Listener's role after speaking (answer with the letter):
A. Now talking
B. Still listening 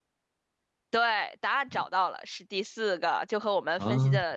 B